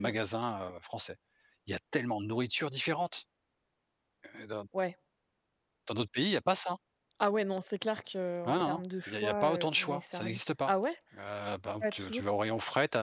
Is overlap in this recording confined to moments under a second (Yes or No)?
No